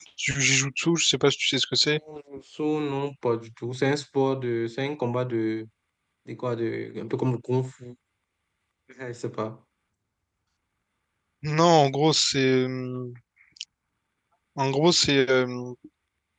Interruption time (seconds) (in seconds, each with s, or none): none